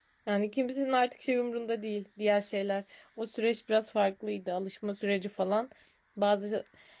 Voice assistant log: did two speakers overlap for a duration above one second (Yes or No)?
No